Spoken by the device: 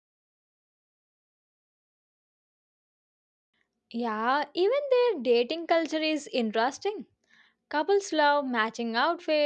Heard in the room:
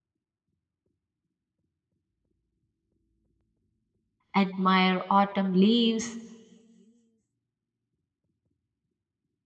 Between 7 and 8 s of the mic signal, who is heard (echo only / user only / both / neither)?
neither